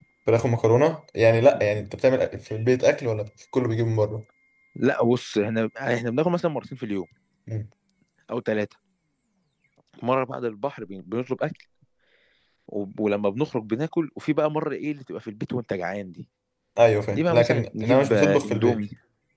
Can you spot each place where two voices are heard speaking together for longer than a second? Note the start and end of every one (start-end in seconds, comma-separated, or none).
17.1-18.8